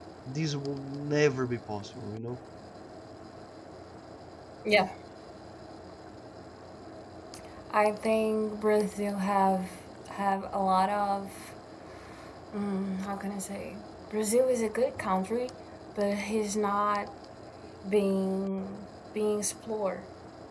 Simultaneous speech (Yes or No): No